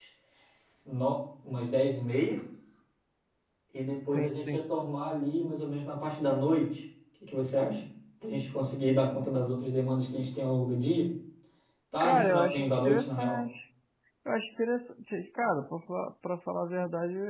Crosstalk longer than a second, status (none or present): present